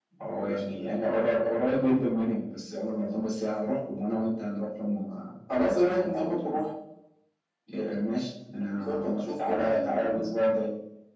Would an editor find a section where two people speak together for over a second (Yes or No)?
Yes